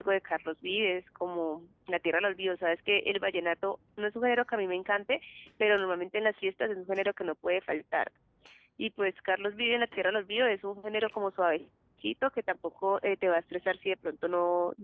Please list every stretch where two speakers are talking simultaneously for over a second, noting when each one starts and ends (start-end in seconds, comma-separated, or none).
none